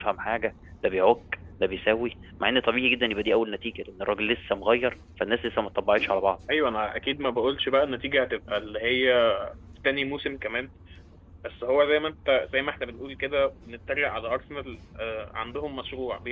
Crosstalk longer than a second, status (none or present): none